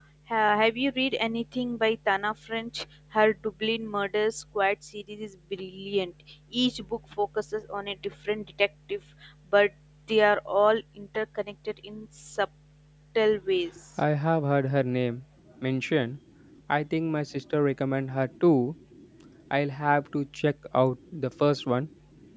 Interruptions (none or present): none